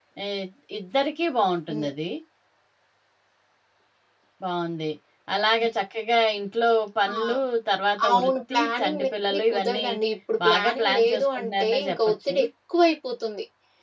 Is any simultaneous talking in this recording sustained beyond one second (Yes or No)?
Yes